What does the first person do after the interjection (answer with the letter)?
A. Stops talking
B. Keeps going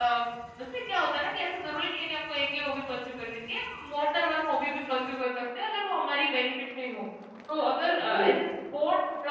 B